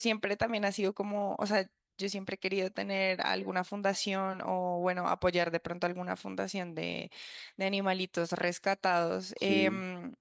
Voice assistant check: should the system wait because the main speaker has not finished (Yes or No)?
Yes